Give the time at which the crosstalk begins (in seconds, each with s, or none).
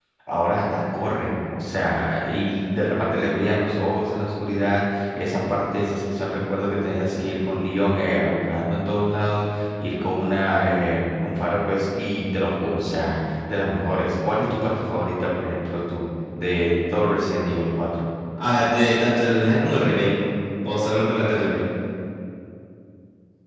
none